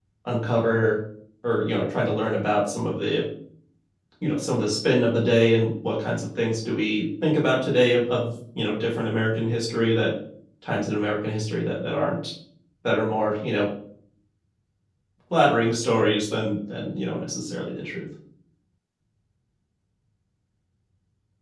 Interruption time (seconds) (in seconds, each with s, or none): none